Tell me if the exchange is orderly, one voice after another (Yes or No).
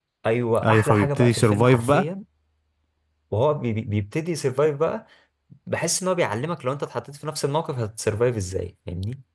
No